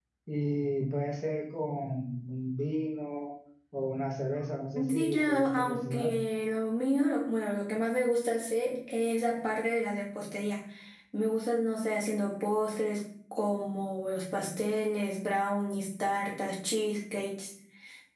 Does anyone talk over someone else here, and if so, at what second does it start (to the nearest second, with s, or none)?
5 s